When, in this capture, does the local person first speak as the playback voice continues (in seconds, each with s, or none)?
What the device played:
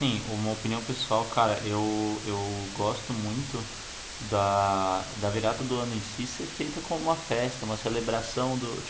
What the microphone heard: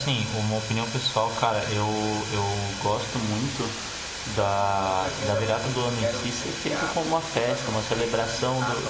4.3 s